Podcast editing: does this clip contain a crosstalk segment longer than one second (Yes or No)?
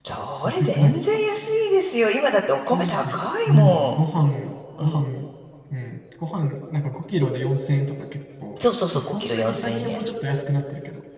Yes